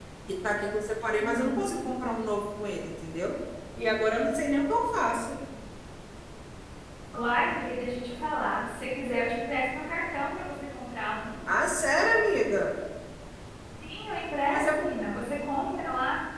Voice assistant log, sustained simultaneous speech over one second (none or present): none